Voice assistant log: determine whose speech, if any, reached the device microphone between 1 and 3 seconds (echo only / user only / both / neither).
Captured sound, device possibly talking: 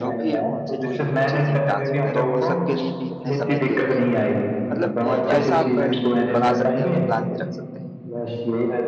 both